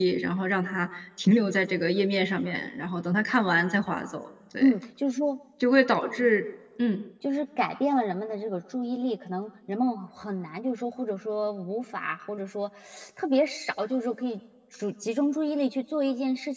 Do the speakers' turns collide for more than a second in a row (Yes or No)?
No